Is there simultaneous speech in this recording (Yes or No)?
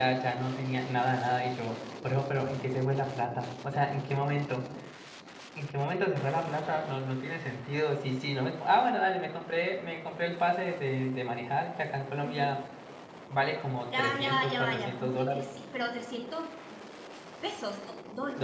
Yes